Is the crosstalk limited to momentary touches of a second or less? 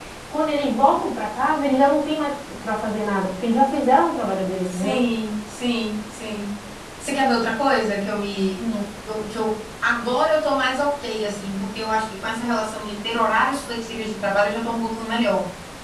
Yes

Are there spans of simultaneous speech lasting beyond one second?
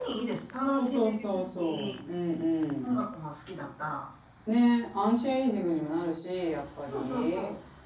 Yes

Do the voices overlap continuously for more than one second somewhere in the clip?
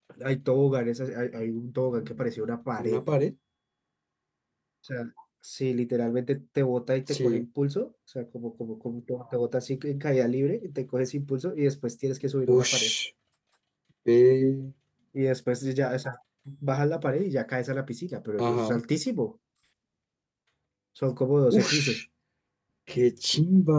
No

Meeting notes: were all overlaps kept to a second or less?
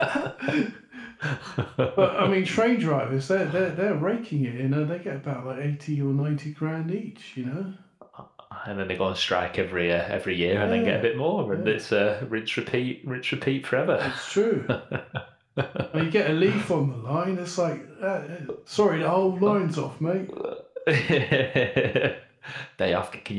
Yes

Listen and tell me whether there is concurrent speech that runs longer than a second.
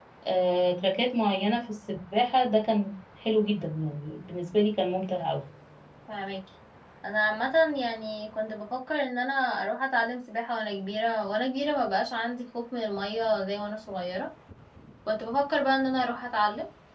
No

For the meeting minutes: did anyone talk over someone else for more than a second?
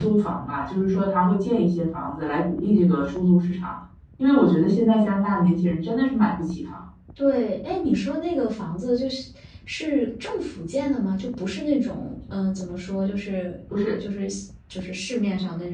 No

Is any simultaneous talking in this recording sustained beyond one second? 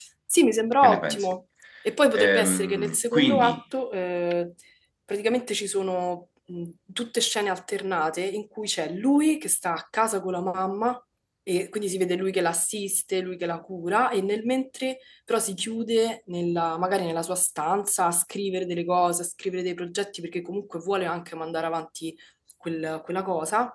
Yes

